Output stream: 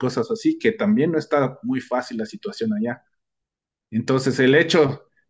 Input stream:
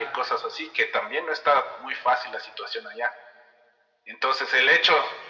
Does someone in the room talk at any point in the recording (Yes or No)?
No